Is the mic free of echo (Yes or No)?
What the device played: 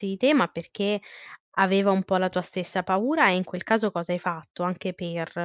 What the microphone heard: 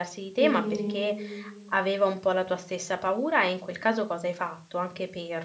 No